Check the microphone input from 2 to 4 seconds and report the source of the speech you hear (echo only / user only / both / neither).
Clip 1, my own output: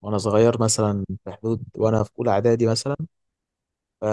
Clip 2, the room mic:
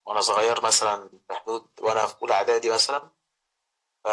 echo only